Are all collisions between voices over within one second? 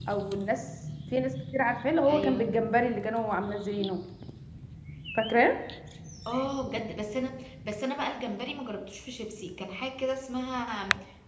Yes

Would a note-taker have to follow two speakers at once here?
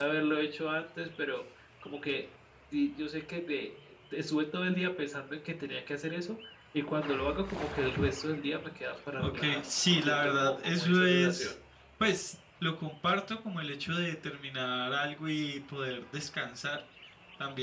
Yes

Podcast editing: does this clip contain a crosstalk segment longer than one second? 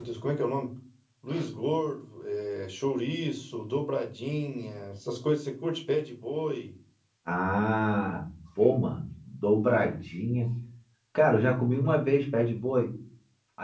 No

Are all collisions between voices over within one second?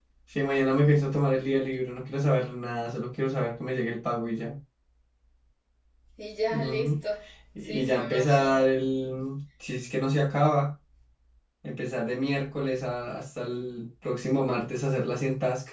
No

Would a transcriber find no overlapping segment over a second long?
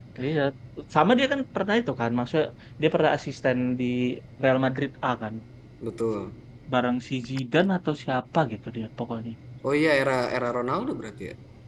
Yes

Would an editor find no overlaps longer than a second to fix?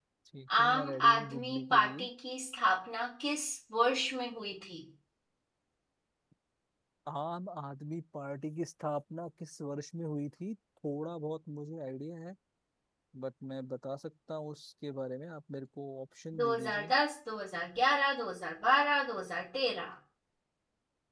No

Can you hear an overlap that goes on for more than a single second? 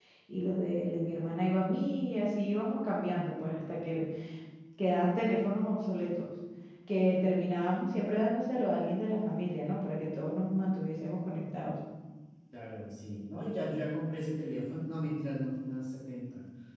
No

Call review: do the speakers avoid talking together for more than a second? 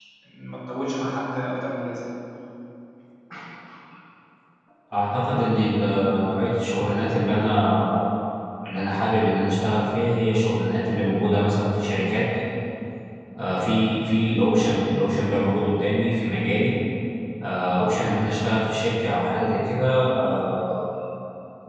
Yes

